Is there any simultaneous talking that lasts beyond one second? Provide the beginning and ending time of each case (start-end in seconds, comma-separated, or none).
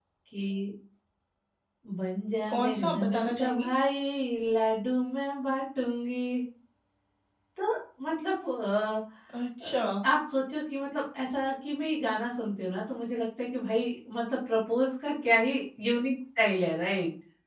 2.5-3.7